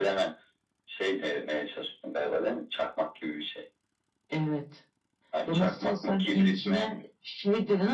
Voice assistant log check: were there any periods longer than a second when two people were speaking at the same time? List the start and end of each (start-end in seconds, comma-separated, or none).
5.5-6.9